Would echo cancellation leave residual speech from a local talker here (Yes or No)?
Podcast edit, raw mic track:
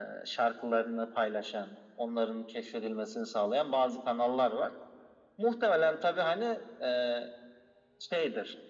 No